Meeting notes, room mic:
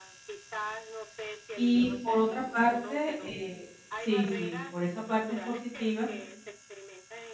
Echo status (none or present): present